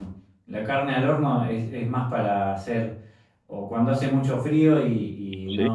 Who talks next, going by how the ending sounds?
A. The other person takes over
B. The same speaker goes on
B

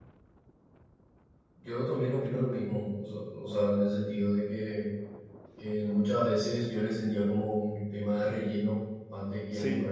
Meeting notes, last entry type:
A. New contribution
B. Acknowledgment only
B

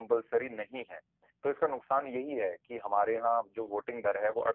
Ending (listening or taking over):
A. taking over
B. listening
B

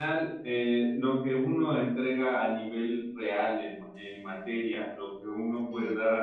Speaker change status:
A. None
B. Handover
A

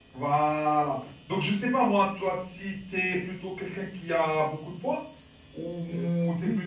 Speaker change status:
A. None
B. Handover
B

